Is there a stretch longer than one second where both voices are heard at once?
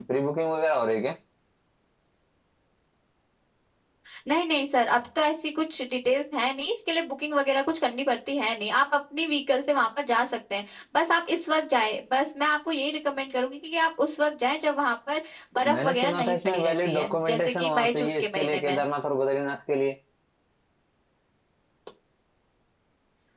Yes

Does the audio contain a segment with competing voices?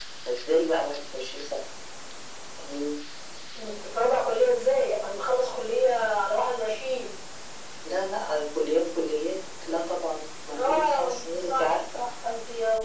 Yes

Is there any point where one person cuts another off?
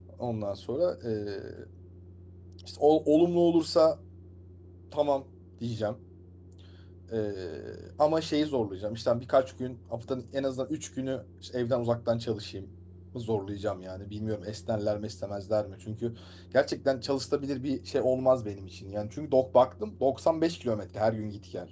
No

